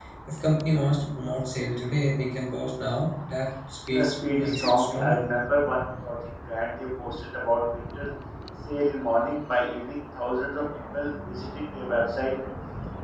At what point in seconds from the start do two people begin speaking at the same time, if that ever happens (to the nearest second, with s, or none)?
4 s